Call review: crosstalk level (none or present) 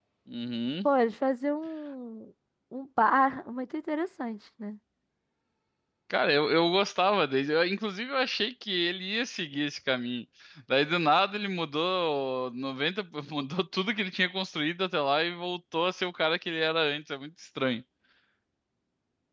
none